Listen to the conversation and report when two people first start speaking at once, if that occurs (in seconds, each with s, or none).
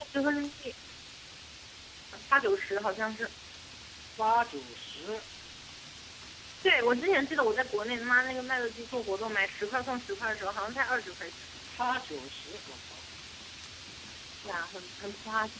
none